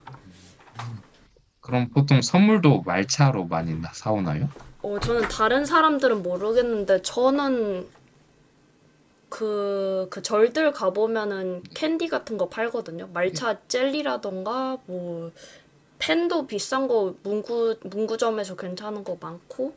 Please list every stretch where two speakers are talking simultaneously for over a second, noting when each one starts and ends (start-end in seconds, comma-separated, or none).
none